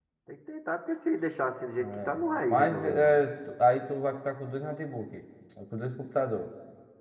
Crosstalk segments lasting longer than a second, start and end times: 1.8-3.1

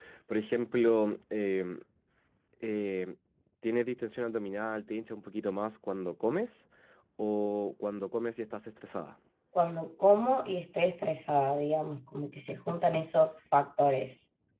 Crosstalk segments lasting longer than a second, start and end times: none

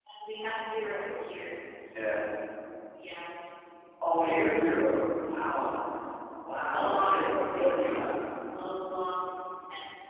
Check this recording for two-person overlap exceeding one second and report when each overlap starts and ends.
6.7-8.1

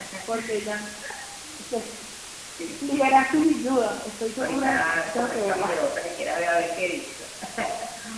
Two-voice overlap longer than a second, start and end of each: 4.4-5.7

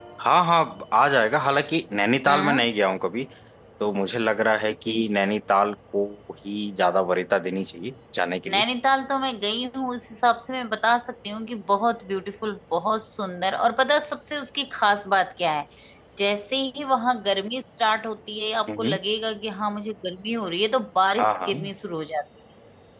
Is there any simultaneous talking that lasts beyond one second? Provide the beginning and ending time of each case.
none

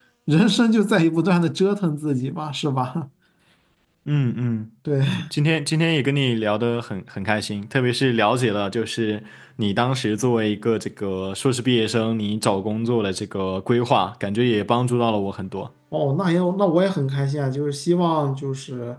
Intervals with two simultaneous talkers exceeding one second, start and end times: none

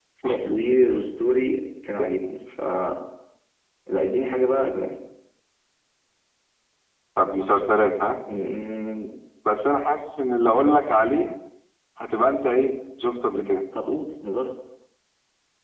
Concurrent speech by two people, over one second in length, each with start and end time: none

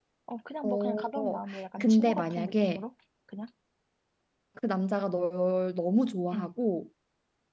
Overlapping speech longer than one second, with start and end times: 0.6-2.8

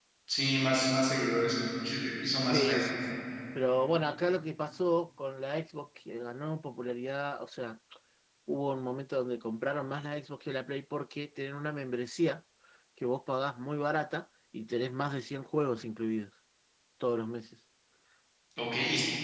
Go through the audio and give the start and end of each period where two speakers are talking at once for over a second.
none

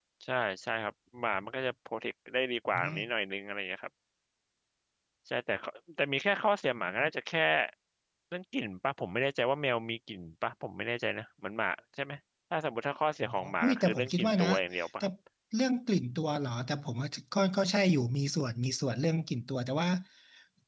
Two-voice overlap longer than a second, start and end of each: 13.2-14.5

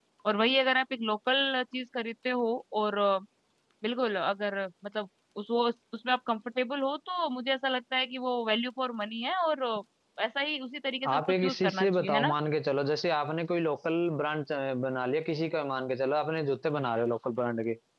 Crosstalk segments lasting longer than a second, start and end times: 11.1-12.3

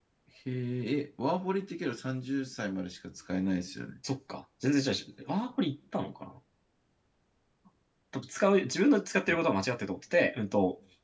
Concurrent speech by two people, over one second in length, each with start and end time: none

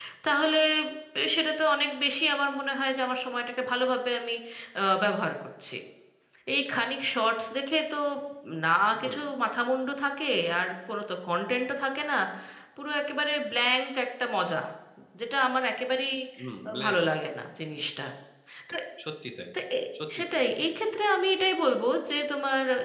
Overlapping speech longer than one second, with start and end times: none

